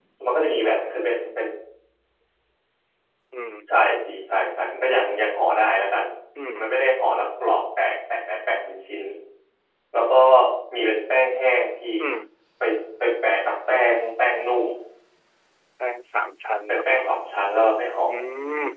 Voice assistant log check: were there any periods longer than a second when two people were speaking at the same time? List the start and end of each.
none

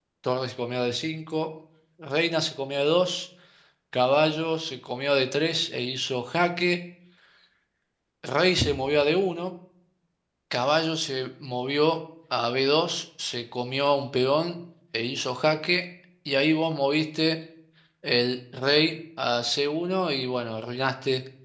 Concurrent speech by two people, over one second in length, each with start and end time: none

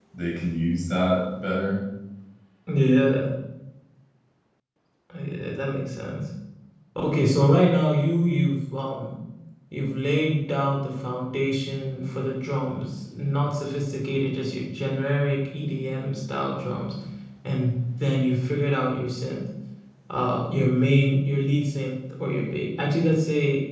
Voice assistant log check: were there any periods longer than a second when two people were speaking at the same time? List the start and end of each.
none

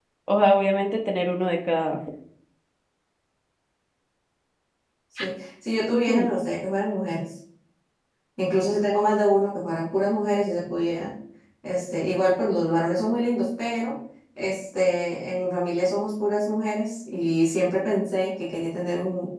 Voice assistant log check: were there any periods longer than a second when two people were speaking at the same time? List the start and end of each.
none

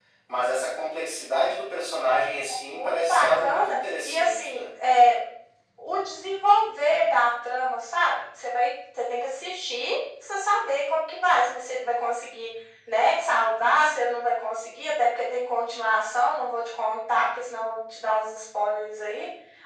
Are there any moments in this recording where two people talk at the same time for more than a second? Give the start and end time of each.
2.7-4.7

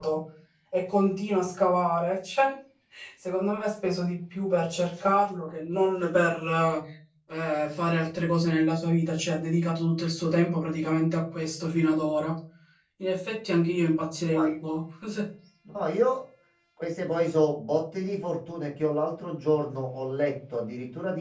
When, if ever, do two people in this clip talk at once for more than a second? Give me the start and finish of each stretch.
none

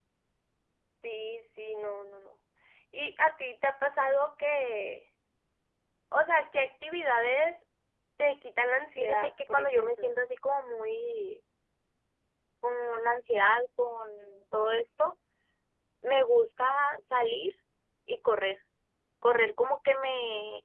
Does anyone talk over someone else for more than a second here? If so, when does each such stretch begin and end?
9.0-10.2

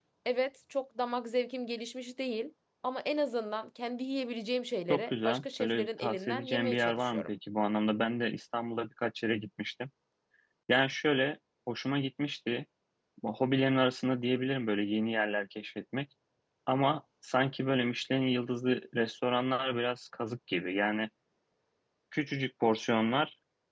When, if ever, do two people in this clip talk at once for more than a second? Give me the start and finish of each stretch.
4.9-7.3

